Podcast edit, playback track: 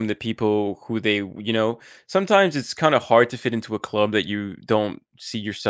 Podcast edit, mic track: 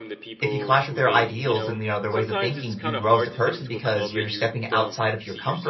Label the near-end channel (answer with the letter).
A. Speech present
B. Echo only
A